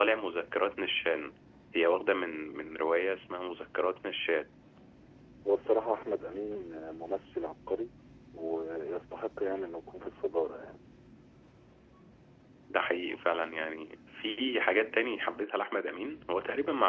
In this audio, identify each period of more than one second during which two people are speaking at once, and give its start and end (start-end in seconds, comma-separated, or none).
none